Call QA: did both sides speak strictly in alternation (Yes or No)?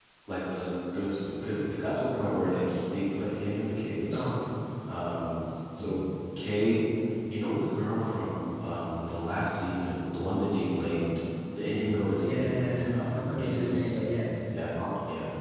No